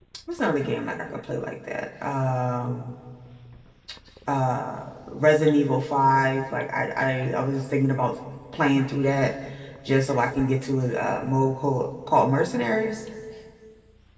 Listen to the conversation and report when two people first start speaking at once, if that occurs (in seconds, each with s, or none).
none